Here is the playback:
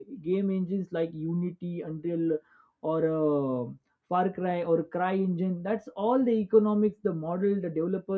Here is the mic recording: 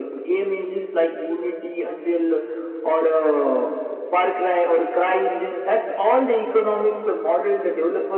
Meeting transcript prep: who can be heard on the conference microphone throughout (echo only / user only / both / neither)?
echo only